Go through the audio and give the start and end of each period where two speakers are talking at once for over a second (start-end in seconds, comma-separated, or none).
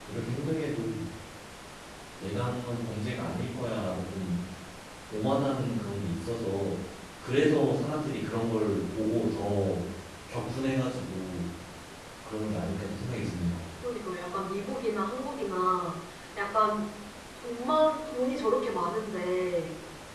none